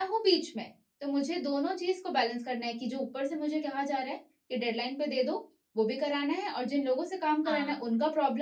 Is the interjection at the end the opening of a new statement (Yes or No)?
No